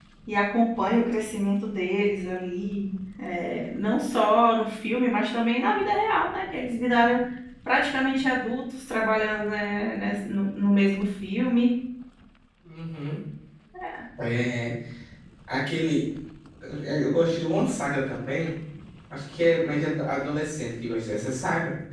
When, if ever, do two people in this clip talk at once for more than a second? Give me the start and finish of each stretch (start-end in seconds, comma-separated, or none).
none